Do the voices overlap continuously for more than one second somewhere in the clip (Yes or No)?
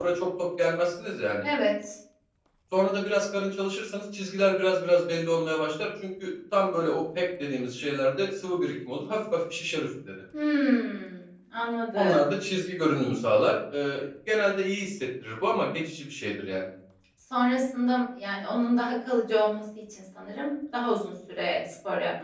No